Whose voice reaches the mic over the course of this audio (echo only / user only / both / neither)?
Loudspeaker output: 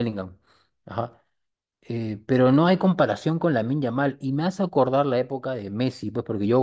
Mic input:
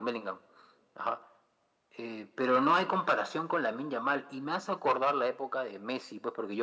echo only